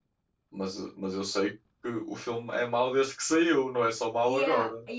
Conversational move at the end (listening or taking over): taking over